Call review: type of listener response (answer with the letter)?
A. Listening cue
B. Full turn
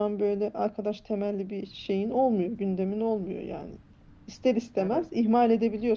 A